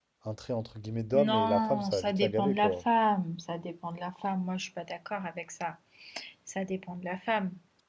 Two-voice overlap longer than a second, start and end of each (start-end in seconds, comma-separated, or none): 1.2-2.8